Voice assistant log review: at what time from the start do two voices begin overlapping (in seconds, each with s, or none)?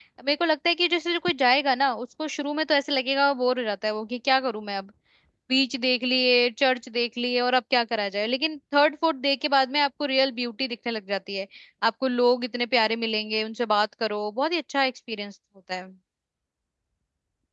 none